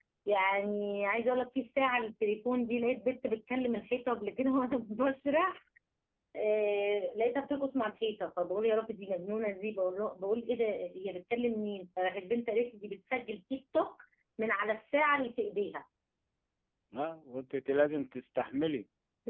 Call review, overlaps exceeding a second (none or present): none